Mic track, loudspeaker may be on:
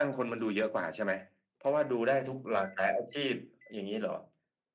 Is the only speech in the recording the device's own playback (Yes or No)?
Yes